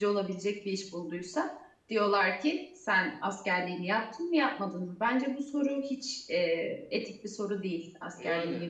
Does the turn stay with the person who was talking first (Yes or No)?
No